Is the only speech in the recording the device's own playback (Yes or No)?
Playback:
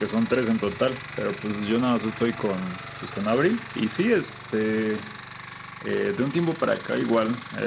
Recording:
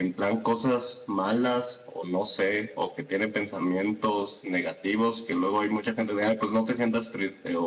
No